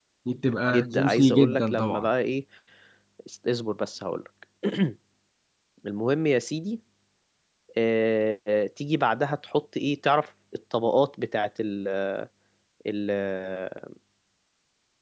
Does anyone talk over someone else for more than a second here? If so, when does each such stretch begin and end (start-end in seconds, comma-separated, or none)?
0.7-2.1